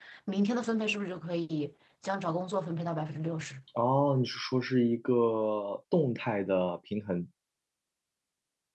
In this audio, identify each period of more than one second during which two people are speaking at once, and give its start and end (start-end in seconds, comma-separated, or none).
none